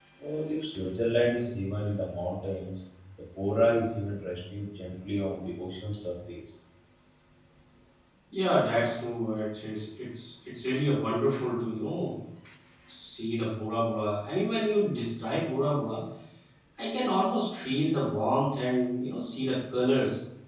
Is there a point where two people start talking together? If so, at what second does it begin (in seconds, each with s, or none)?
none